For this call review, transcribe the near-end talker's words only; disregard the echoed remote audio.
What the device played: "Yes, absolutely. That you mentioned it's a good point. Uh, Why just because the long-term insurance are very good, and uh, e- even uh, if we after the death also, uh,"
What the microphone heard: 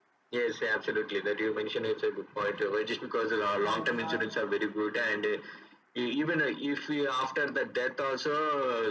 claims, or

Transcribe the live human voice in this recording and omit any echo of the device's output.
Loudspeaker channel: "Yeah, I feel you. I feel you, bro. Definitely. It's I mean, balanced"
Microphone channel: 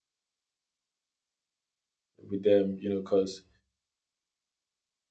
with them. You know, cause

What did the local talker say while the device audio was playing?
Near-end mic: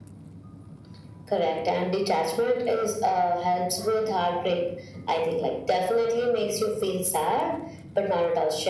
none

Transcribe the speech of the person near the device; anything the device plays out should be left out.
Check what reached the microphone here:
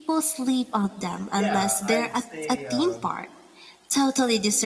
Yeah, I'd say. Uh,

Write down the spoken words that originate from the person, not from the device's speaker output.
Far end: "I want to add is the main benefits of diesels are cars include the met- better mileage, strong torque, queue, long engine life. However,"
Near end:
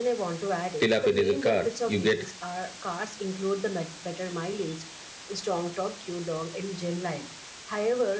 fill up a diesel car, you get

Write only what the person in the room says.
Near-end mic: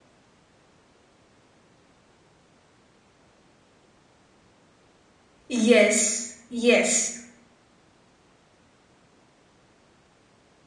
Yes, yes,

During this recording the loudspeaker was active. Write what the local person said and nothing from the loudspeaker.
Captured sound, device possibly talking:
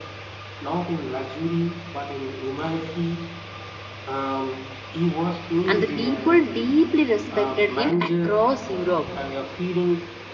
and the people deeply respected him across Europe.

